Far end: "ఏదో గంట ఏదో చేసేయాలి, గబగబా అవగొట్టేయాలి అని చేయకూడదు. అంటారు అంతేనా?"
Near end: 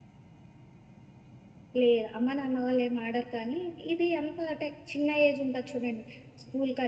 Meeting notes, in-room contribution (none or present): present